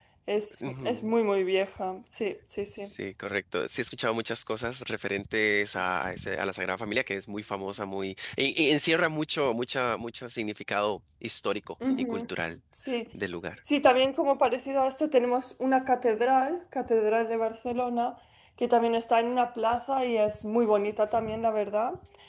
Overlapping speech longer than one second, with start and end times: none

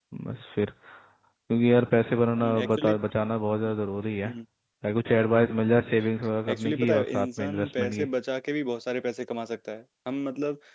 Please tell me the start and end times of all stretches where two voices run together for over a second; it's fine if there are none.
6.5-8.1

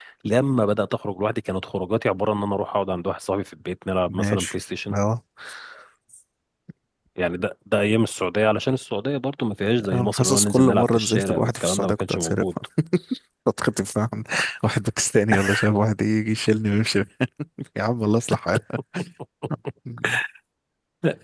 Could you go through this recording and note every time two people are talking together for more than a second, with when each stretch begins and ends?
9.9-12.4

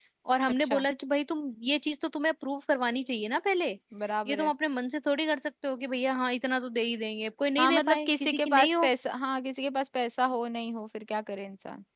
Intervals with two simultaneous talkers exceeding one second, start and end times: 7.6-8.9

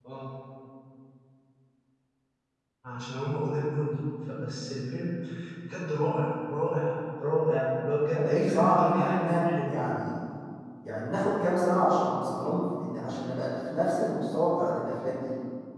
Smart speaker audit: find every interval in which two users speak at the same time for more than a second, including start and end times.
8.1-9.7

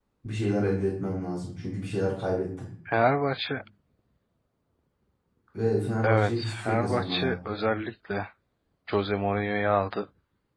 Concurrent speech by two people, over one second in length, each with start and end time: 6.0-7.4

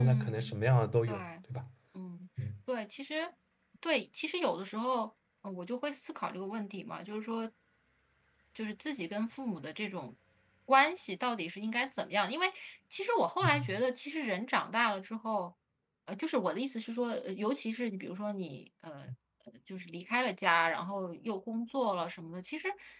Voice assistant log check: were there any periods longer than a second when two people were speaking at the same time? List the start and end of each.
none

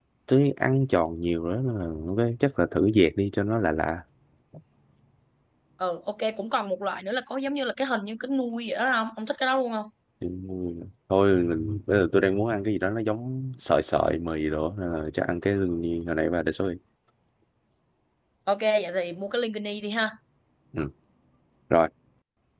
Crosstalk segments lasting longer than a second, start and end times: none

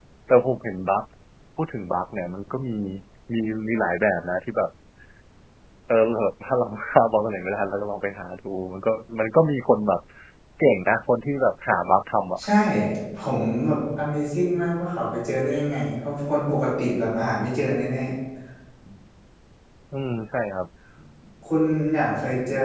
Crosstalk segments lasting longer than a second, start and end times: none

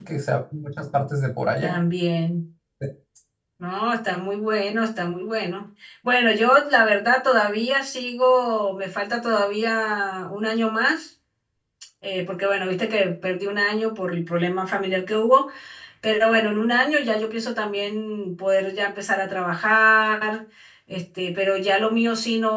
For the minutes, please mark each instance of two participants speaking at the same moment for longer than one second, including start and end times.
none

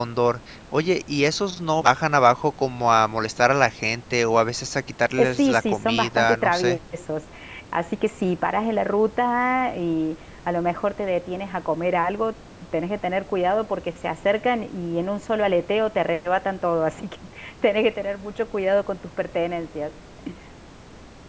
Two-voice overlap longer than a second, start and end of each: 5.2-6.8

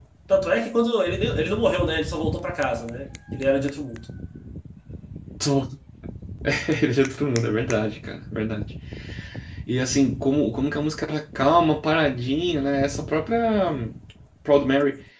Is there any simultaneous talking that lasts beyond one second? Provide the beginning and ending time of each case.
none

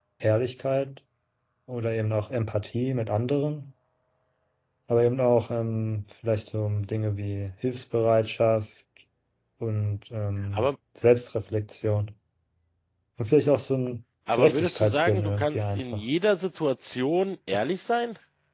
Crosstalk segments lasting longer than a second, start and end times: 14.3-16.0

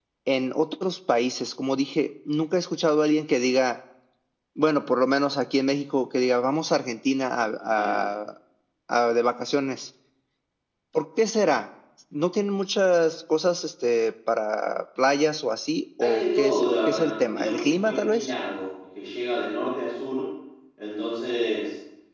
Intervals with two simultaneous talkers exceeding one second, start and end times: 16.0-18.3

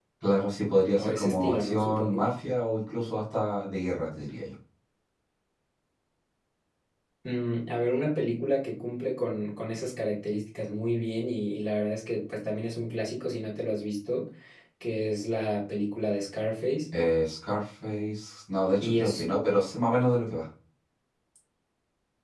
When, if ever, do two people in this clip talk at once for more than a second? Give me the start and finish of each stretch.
1.0-2.3

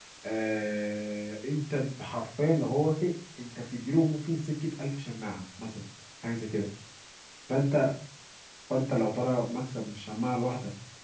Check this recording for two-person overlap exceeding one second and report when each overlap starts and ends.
none

